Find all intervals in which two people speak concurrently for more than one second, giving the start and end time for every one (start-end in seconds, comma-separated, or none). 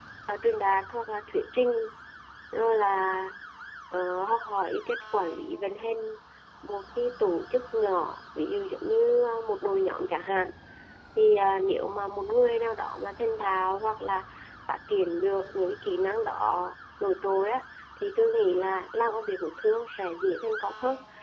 none